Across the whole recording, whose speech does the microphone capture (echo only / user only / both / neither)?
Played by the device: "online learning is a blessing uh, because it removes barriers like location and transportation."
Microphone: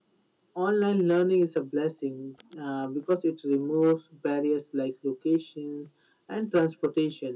echo only